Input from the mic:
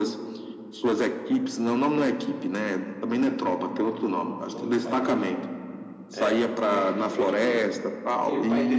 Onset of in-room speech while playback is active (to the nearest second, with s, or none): 4 s